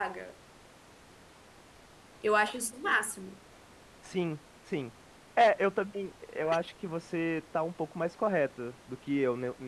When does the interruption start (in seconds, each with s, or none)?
none